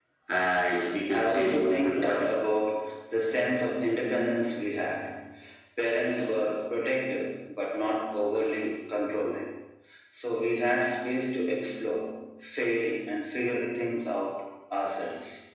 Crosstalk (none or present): present